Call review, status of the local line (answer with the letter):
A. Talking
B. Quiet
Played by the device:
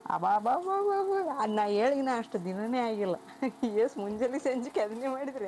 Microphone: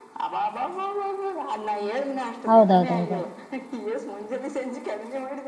A